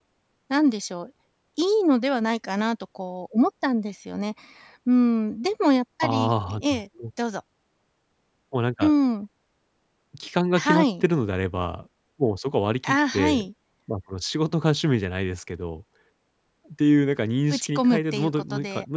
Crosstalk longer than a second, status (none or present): present